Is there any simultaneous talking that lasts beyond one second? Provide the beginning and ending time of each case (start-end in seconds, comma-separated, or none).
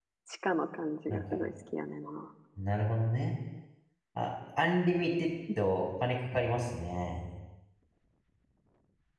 none